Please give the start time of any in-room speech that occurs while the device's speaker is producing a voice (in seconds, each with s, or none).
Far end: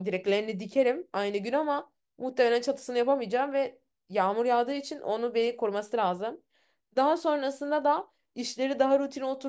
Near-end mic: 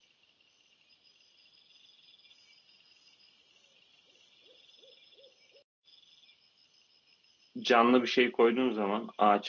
7.6 s